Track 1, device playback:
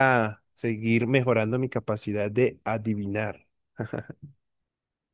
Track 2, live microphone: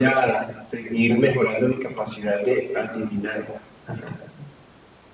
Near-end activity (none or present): none